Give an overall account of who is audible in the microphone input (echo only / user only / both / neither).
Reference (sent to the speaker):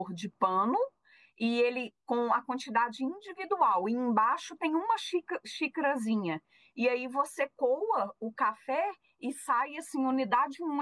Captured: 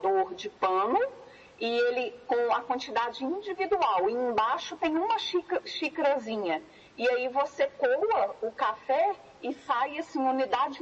echo only